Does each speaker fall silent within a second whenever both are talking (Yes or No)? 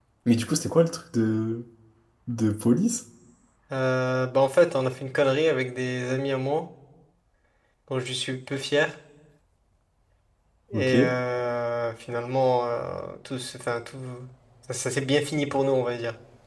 Yes